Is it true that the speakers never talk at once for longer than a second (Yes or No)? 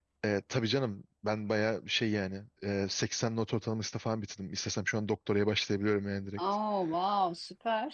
Yes